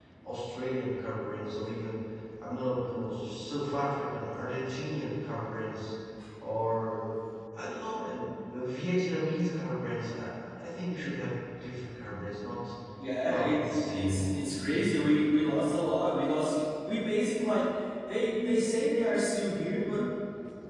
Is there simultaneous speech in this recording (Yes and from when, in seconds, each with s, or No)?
Yes, from 13.3 s